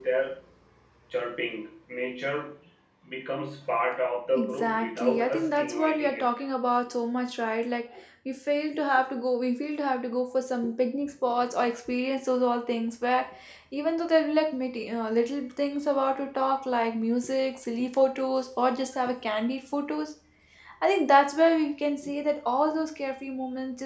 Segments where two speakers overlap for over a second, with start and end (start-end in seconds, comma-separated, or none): 4.3-6.2